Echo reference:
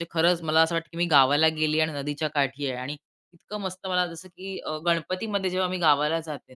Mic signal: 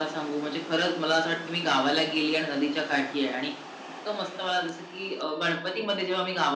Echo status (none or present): present